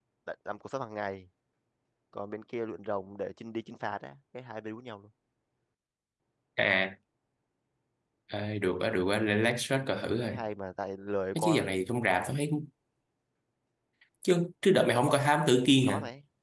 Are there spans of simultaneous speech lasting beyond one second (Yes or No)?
No